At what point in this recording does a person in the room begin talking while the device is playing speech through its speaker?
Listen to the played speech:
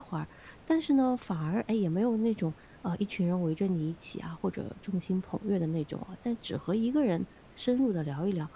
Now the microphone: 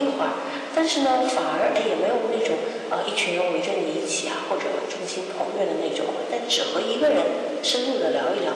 none

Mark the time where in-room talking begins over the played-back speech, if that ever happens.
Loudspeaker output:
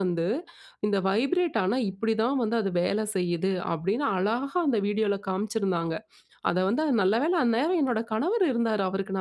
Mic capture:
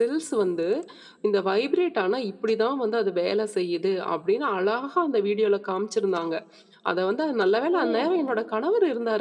7.8 s

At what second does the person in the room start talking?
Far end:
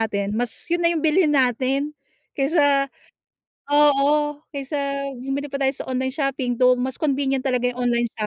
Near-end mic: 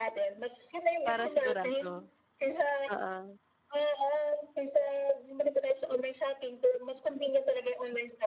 1.0 s

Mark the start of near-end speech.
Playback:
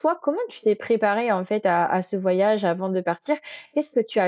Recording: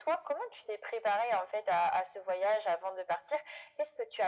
none

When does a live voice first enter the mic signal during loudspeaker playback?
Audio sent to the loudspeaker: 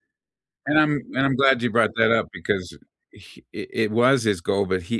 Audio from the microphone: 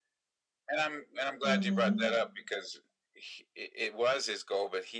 1.4 s

